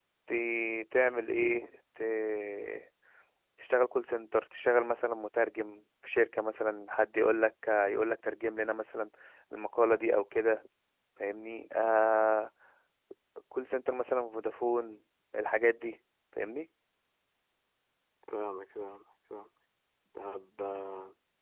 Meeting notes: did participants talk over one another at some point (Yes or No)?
No